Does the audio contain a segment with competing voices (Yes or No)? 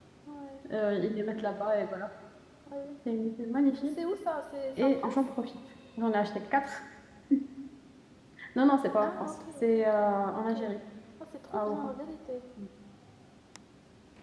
Yes